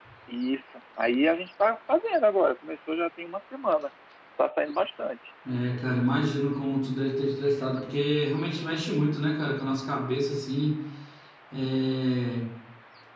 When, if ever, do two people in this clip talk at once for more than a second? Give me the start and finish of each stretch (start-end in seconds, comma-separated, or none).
none